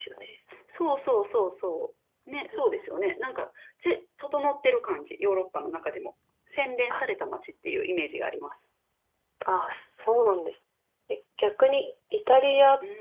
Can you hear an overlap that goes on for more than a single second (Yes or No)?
No